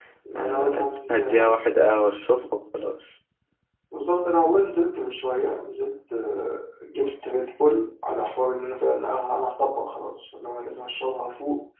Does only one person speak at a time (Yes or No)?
No